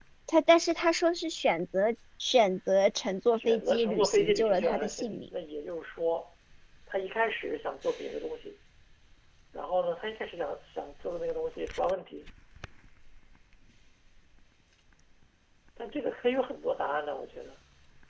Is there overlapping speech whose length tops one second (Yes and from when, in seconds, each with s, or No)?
Yes, from 3.4 s